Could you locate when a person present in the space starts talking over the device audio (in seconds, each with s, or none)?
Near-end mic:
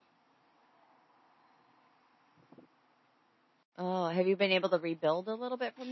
3.8 s